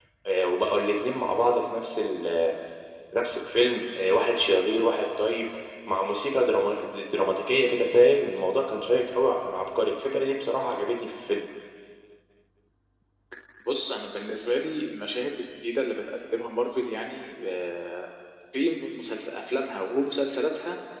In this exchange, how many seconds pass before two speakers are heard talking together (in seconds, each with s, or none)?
none